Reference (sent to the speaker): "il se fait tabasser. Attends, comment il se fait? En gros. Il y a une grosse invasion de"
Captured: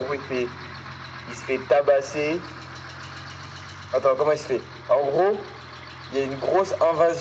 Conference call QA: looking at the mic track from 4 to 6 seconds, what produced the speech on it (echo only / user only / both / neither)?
echo only